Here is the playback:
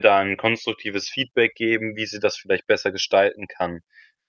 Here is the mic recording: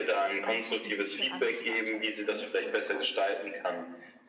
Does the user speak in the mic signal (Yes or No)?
Yes